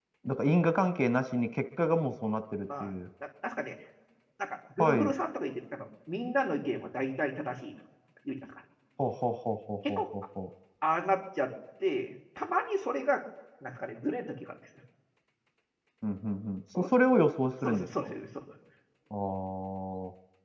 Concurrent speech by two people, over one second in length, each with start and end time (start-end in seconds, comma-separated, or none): none